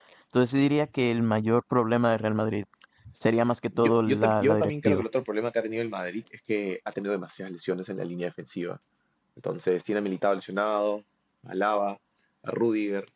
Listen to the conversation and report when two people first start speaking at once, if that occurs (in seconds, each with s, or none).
3.8 s